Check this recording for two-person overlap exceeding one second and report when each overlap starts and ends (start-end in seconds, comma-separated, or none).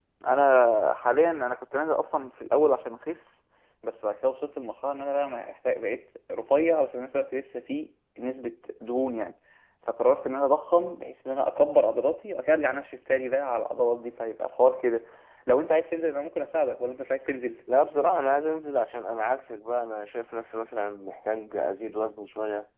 none